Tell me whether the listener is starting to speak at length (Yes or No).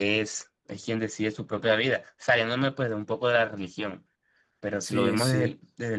No